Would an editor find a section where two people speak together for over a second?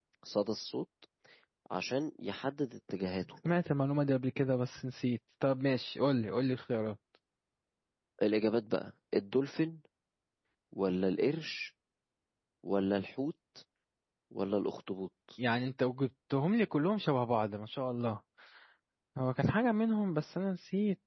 No

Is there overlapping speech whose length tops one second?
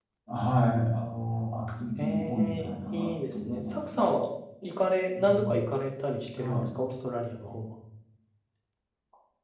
Yes, from 2.0 s

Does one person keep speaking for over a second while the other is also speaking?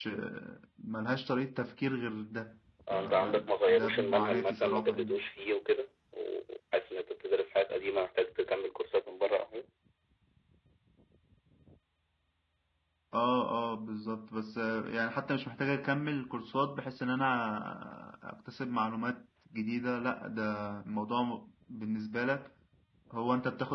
Yes, from 2.9 s

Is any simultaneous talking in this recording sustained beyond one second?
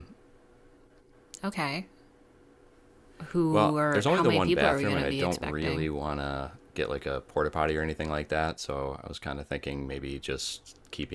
Yes, from 3.5 s

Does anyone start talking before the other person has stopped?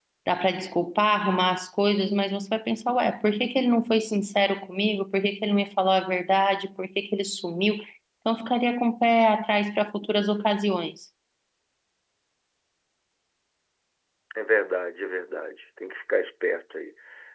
No

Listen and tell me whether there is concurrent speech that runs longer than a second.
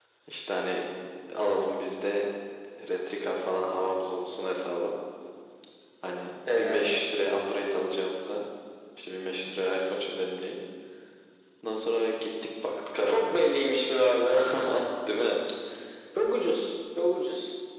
No

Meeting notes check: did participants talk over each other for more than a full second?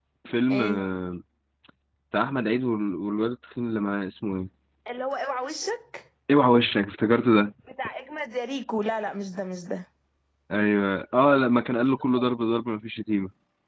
No

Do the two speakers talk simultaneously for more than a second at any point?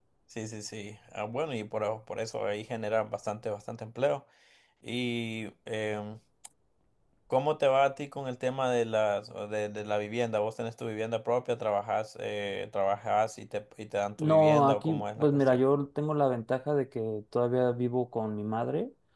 Yes, from 14.2 s

